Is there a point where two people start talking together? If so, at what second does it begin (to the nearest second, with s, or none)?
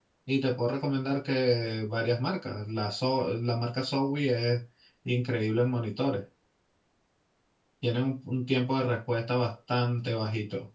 none